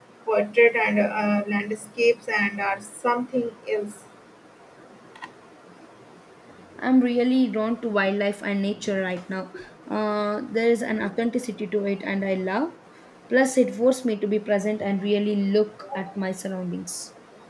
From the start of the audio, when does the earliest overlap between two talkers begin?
none

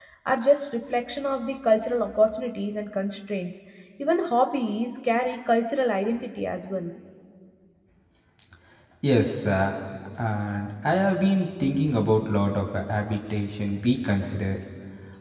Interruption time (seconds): none

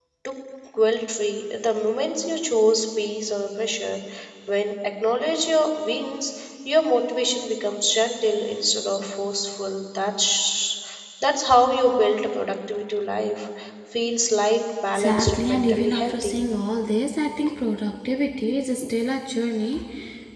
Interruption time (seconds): 14.9 s

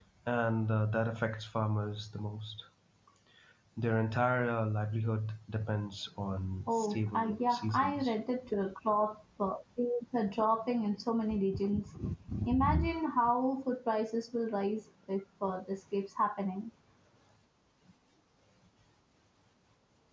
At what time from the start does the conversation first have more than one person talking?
6.7 s

